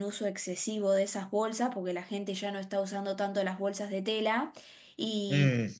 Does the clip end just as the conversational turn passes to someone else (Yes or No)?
No